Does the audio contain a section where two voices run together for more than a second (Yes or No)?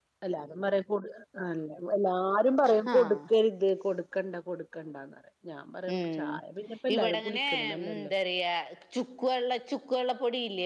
Yes